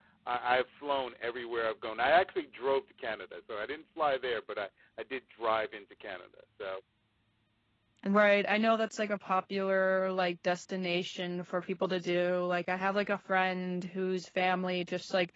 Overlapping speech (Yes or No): No